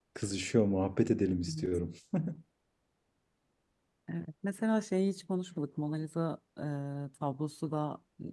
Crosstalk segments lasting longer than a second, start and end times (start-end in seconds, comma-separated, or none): none